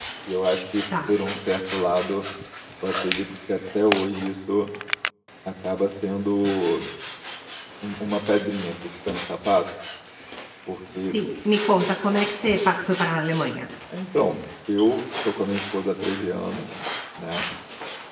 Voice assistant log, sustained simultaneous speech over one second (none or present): none